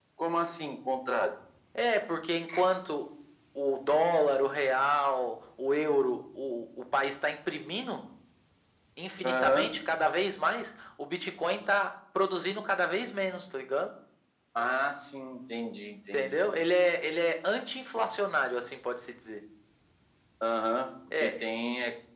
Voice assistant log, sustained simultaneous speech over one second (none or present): none